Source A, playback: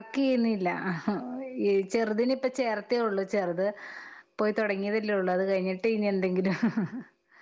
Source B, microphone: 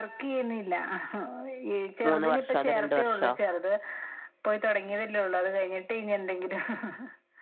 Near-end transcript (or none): മൂന്ന് വർഷവോ അതോ രണ്ട് വർഷവോ.